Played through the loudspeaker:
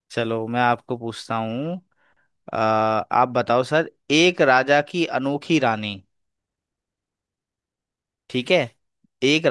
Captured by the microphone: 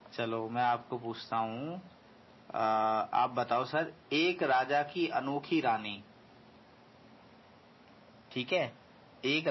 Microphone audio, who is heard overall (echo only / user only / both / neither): echo only